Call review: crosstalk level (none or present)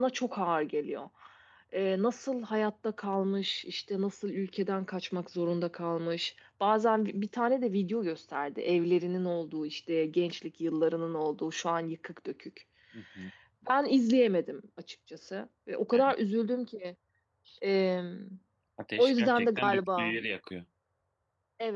present